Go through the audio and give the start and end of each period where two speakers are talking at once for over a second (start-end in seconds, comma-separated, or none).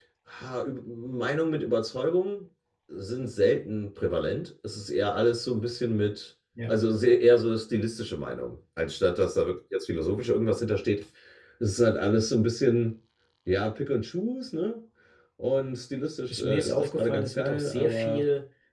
16.3-18.2